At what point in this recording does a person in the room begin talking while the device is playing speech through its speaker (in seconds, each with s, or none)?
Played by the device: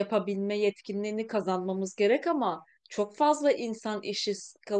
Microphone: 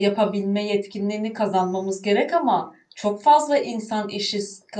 none